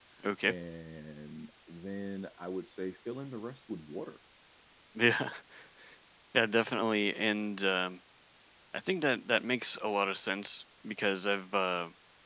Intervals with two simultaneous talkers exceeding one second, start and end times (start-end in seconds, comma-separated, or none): none